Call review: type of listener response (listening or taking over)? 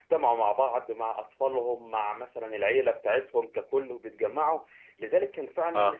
listening